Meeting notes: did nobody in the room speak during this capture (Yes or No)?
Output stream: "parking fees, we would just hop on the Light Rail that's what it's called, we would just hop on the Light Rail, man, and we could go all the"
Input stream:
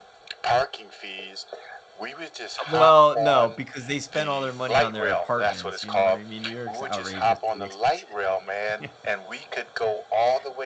No